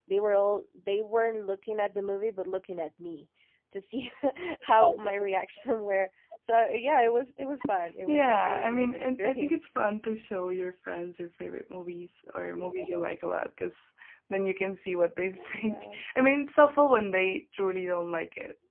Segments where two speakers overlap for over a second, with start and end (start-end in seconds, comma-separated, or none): 8.1-9.6